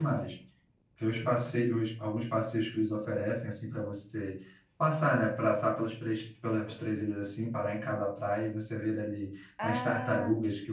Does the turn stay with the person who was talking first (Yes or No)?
Yes